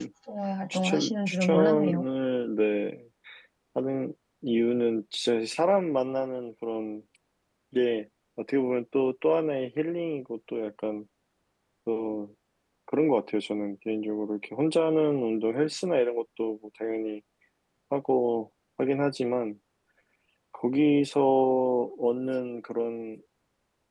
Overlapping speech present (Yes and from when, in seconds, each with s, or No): Yes, from 0.7 s